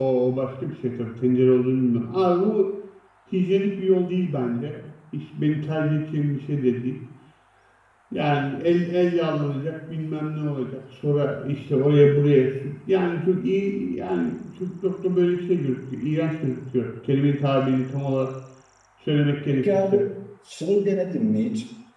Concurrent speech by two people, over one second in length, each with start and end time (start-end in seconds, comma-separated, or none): none